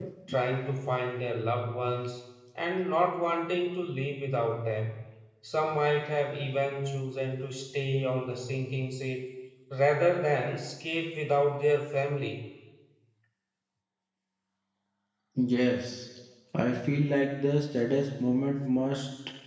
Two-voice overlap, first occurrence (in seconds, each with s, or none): none